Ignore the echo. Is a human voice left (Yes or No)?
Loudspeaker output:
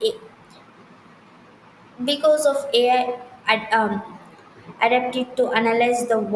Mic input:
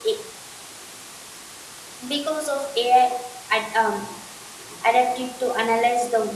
No